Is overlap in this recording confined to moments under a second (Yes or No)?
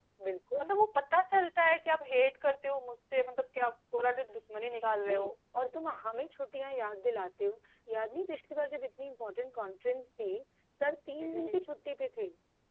Yes